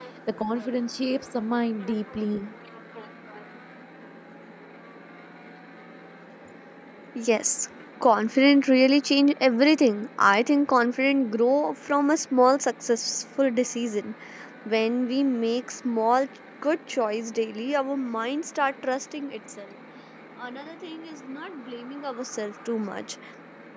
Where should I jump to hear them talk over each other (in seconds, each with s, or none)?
none